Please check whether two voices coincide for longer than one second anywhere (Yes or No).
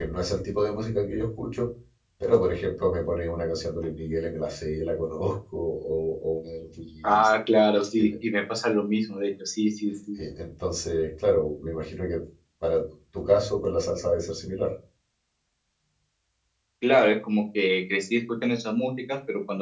No